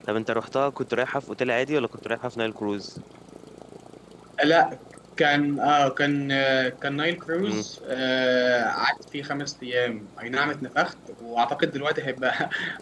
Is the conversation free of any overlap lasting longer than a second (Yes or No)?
Yes